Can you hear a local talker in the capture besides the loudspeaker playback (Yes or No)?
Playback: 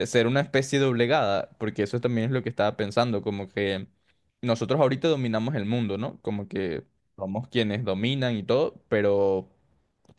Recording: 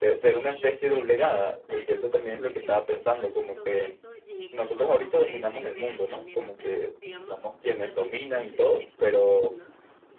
Yes